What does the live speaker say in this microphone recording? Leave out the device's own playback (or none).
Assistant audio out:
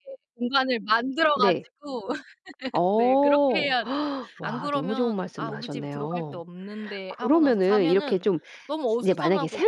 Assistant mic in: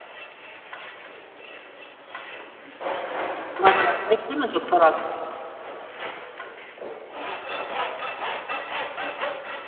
맞아요. 그렇게 하면 좋더라고요.